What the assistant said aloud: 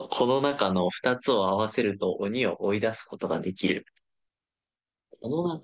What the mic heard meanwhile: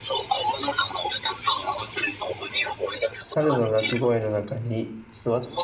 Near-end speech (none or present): present